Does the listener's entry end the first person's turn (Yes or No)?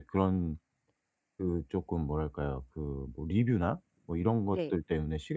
No